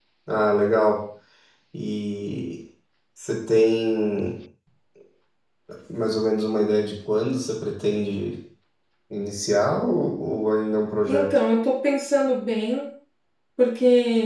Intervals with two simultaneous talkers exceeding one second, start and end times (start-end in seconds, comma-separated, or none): none